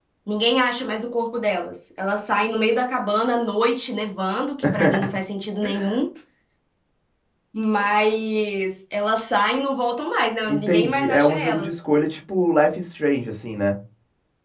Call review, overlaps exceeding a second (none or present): present